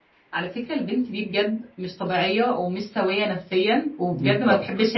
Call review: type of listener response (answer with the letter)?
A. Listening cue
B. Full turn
A